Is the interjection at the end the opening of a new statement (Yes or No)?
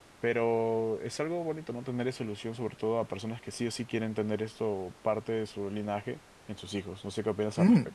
Yes